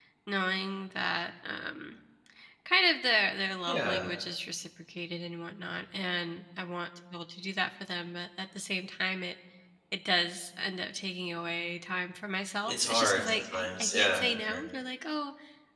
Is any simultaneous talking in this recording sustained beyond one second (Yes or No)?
Yes